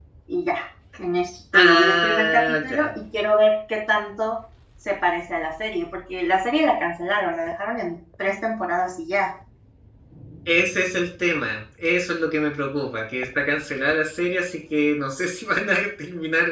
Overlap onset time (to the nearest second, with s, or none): 2 s